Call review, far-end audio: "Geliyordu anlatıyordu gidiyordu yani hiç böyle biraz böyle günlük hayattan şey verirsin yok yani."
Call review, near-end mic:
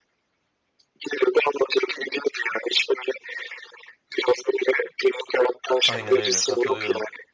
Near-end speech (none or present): present